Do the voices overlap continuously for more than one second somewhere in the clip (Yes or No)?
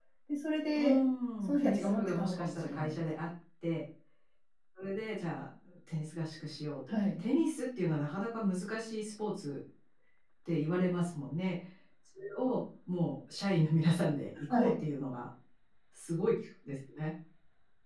Yes